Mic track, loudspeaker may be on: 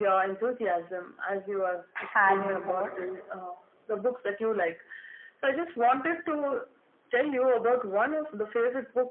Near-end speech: present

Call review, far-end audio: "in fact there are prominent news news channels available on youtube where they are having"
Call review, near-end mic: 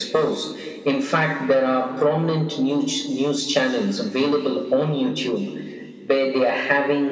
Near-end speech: none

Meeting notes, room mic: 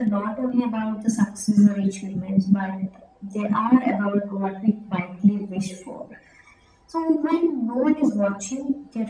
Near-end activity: none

